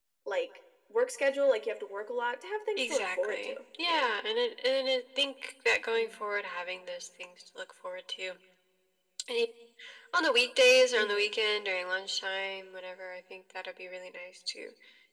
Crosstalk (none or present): present